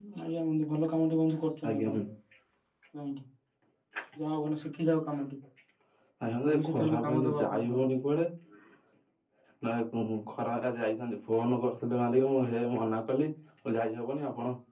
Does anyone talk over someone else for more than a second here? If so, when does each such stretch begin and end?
6.5-7.8

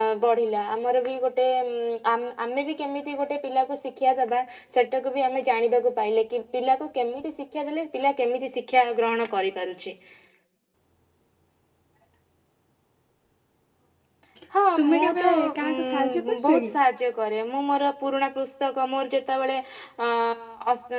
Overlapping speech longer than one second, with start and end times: 14.8-16.7

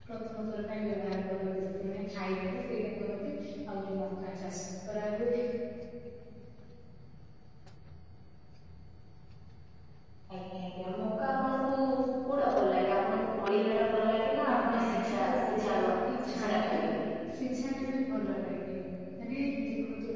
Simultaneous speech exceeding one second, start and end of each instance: 14.5-15.7

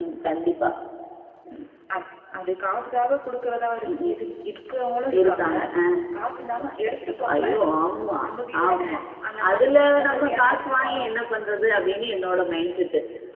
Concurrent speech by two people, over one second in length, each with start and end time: 9.5-10.8

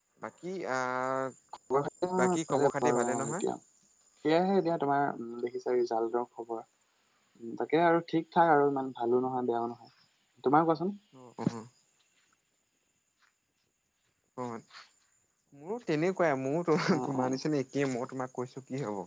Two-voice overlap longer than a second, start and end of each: 2.2-3.5

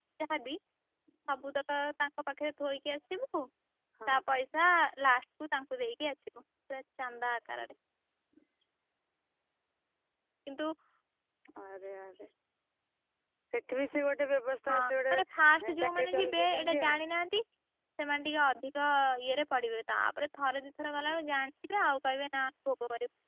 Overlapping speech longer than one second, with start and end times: 15.1-17.0

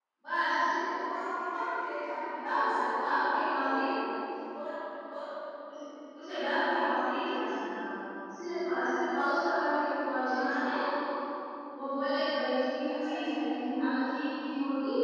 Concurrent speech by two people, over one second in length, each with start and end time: 2.4-3.7

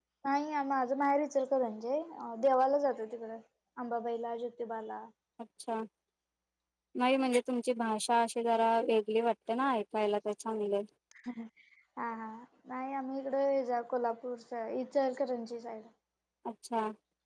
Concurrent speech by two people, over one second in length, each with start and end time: none

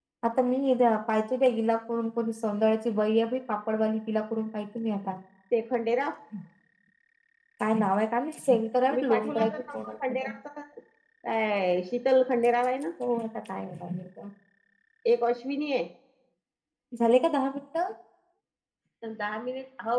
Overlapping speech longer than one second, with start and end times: 8.9-10.3

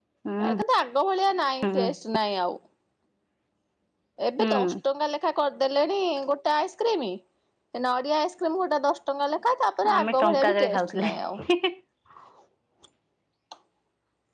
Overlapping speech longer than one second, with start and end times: 10.0-11.2

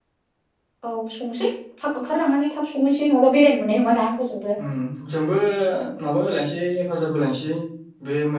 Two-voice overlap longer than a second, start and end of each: none

